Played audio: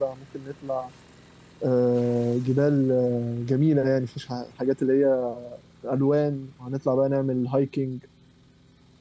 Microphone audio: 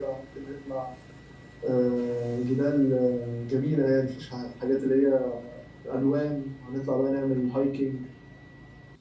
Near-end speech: none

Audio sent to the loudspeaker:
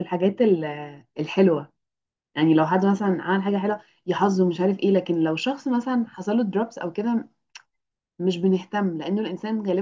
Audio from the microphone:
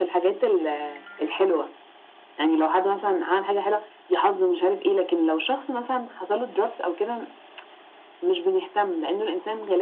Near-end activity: none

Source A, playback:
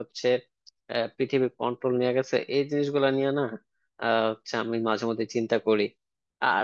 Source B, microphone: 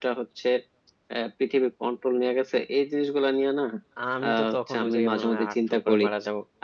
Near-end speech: present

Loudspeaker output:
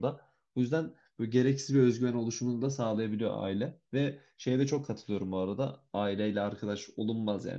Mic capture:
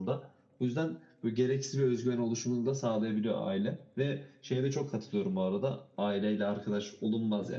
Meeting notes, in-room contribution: none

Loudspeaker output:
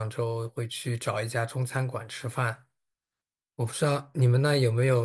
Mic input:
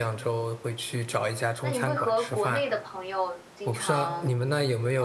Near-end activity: present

